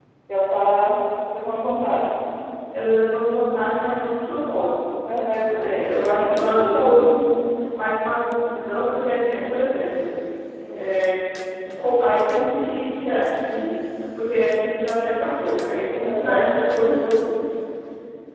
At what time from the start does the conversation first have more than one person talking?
5.3 s

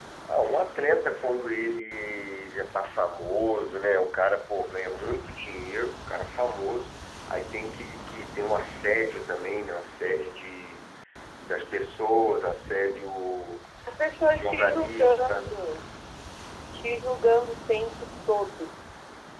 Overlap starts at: 14.1 s

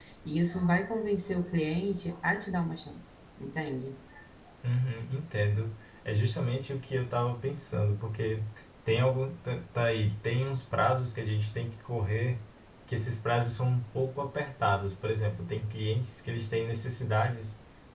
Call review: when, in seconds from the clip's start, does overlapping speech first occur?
none

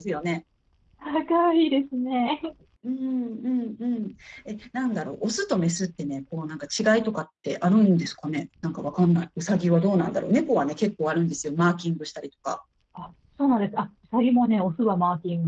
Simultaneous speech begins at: none

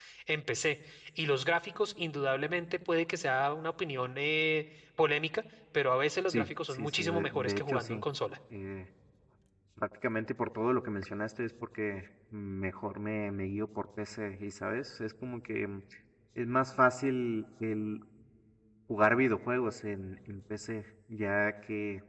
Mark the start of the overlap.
6.3 s

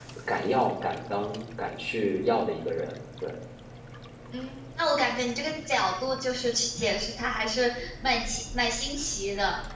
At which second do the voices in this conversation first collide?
none

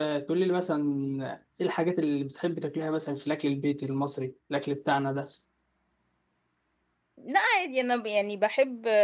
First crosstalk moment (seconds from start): none

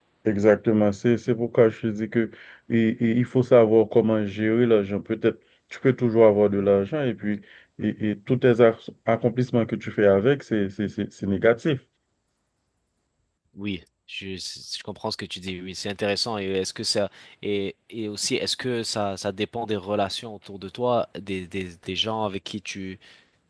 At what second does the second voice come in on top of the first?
none

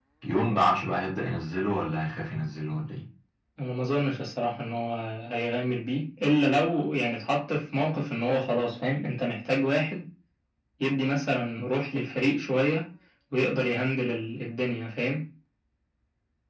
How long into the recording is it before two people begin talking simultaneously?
none

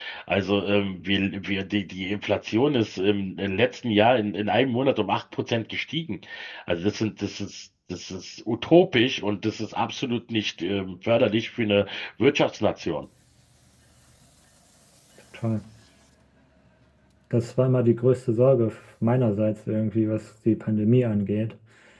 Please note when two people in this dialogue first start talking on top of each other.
none

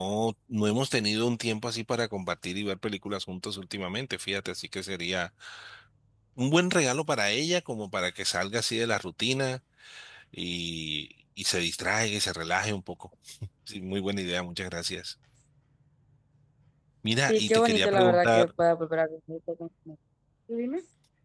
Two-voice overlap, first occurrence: 17.3 s

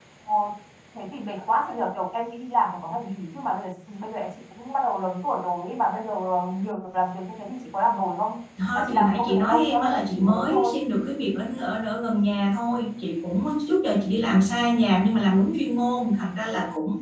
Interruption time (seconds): 8.6 s

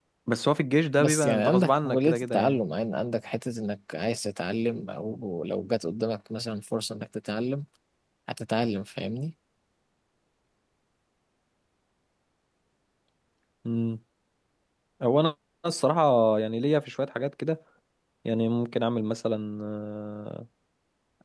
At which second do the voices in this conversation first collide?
1.0 s

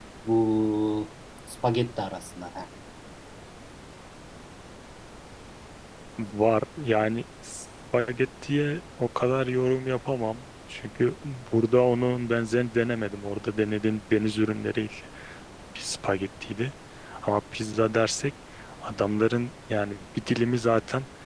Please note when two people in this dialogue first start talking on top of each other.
none

